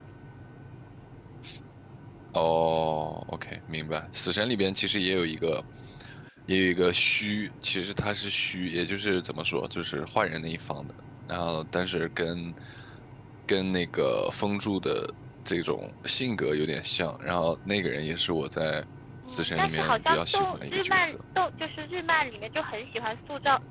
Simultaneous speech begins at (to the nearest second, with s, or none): 19 s